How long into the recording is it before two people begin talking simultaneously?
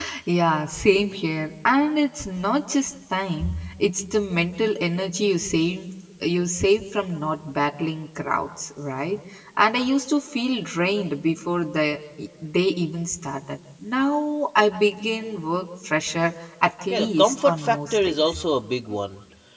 16.9 s

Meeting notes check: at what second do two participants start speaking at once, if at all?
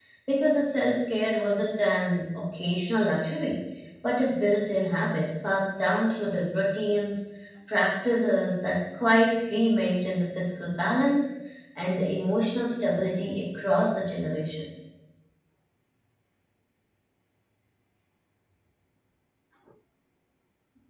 none

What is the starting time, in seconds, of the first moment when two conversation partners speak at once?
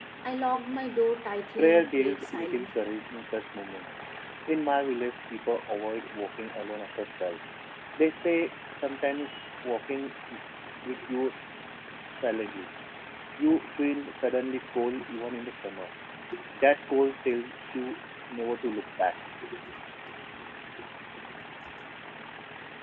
1.6 s

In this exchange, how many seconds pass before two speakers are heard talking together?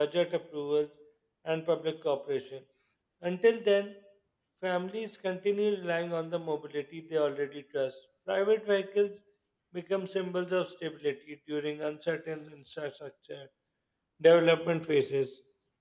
none

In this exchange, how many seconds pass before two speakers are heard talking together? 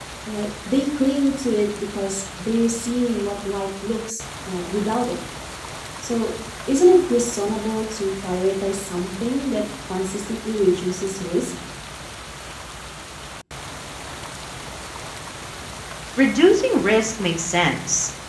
none

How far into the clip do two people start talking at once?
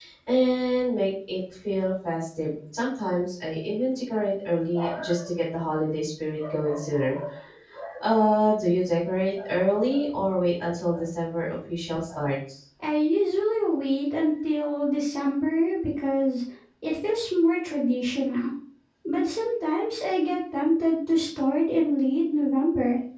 none

